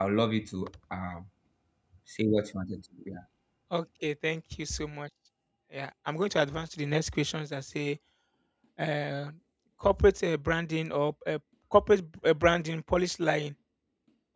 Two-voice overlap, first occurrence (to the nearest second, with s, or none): none